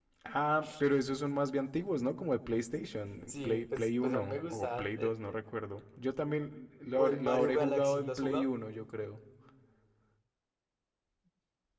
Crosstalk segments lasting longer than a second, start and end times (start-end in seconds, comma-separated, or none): 3.3-5.1, 6.9-8.5